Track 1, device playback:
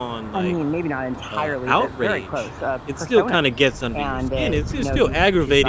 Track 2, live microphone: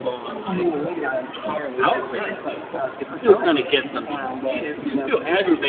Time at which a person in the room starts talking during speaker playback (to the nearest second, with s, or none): none